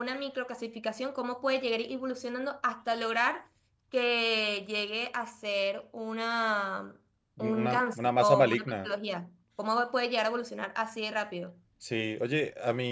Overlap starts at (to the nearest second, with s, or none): 8 s